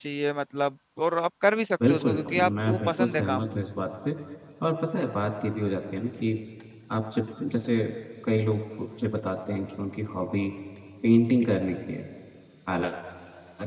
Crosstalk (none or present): present